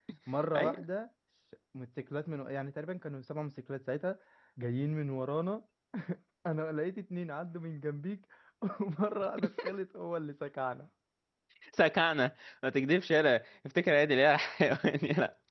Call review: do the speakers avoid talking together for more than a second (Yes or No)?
Yes